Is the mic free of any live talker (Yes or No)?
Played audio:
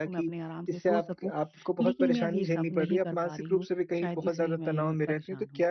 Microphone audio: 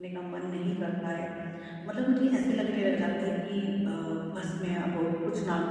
No